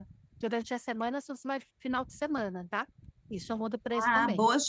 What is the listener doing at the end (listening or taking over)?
taking over